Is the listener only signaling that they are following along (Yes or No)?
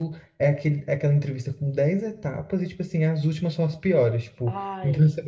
Yes